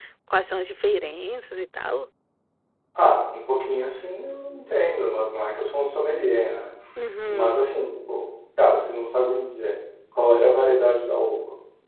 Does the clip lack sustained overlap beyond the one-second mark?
Yes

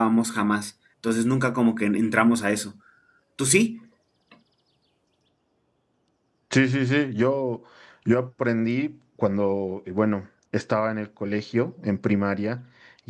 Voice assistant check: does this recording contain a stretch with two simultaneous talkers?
No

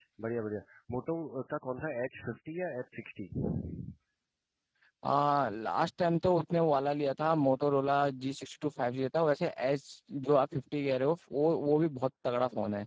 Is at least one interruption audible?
No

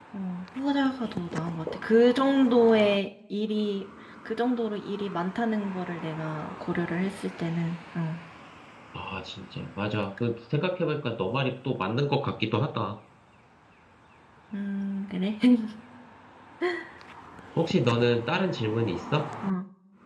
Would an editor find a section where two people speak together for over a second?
No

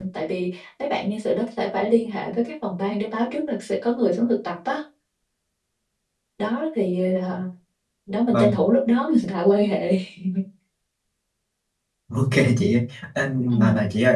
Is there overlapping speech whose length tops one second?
No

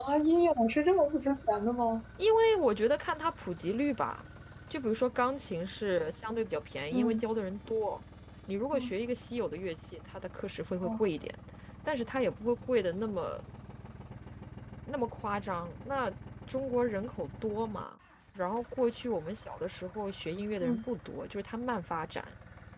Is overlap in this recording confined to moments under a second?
Yes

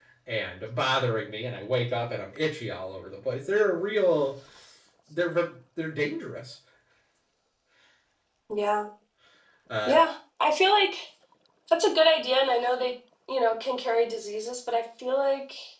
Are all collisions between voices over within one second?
Yes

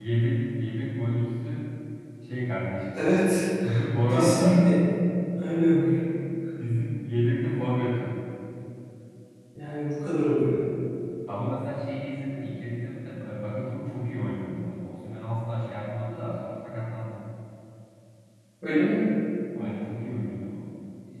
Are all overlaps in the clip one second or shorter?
Yes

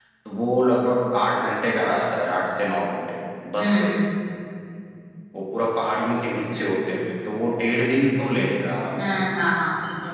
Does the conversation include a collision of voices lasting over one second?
No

